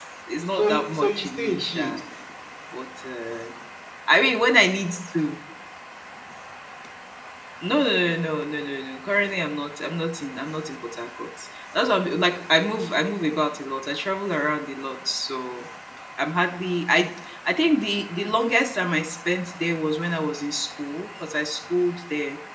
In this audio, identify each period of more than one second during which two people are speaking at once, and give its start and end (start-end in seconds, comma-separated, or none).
0.6-2.0